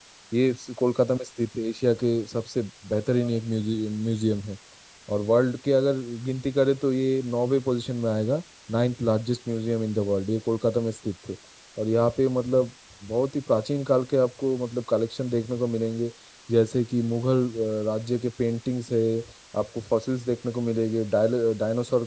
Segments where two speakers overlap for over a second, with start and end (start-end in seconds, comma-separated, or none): none